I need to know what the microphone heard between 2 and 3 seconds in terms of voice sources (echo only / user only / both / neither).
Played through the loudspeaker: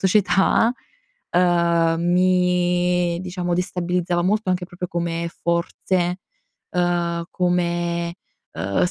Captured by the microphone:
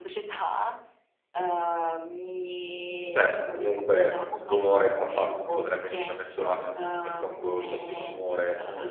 echo only